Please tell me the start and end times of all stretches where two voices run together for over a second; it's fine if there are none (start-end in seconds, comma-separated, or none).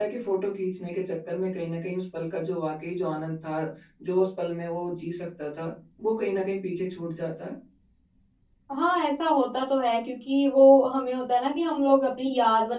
none